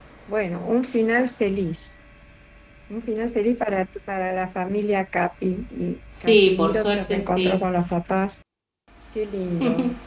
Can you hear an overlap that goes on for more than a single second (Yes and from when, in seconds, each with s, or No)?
Yes, from 6.2 s